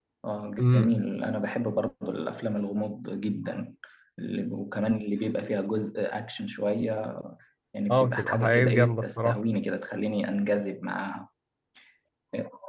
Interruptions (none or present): present